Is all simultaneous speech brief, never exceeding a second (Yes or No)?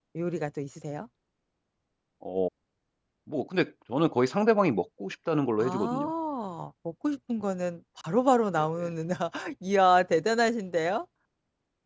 Yes